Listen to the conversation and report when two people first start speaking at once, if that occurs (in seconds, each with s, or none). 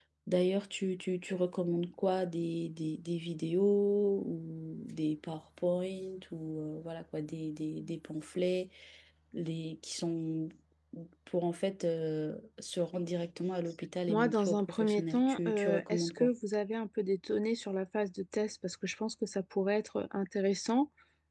14.1 s